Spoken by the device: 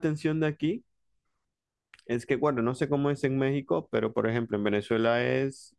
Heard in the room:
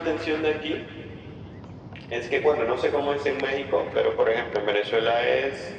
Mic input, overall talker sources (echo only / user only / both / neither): echo only